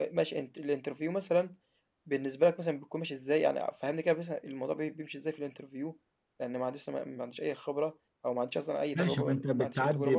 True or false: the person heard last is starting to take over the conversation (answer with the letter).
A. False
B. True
B